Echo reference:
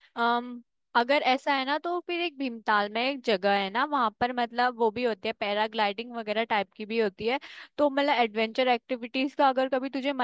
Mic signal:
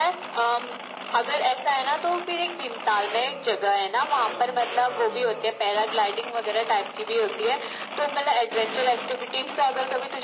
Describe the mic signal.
echo only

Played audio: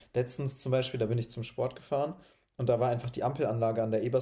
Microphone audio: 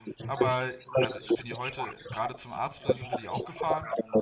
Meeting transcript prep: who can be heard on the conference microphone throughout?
both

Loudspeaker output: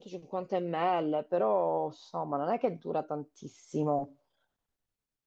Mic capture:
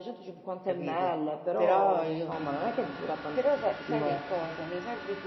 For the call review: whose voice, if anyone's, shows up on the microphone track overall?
both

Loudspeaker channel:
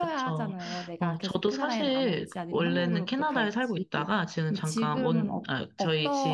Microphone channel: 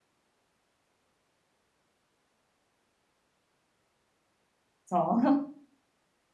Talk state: user only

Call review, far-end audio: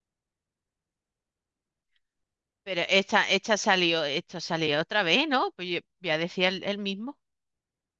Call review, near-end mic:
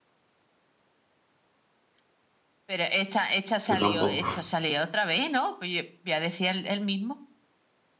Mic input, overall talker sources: both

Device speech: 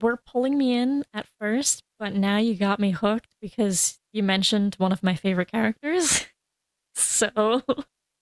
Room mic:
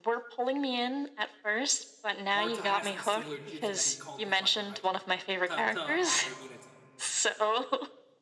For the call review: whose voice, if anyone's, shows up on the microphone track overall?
both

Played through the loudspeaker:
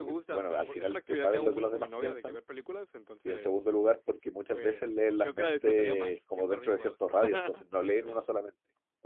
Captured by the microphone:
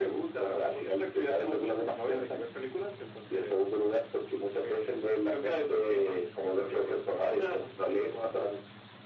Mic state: echo only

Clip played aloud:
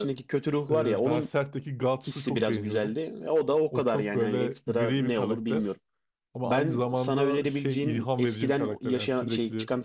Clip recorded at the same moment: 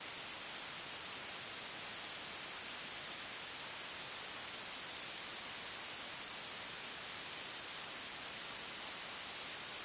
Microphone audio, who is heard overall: neither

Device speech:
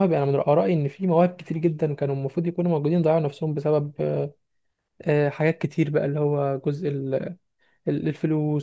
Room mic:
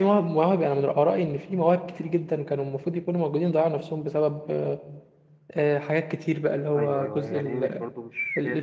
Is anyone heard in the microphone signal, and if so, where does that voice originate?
both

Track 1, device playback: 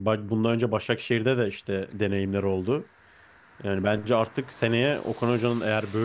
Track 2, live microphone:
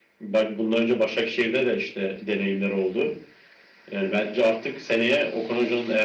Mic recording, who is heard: echo only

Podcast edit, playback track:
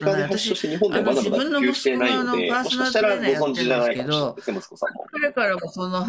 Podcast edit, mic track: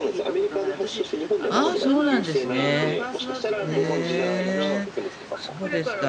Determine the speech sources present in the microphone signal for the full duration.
both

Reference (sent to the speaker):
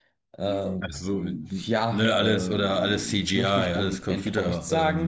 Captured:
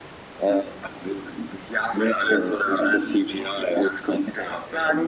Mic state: echo only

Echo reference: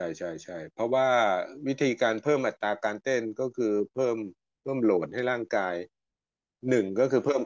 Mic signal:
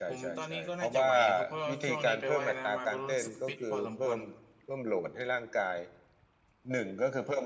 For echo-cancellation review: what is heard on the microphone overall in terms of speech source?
both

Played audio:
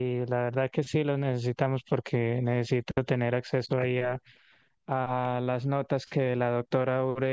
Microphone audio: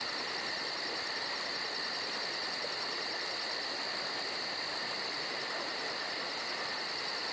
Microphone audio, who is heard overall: neither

